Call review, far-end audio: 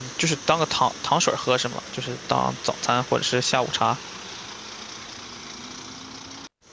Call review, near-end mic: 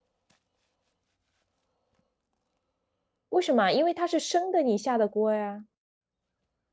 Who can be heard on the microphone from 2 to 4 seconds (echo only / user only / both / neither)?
user only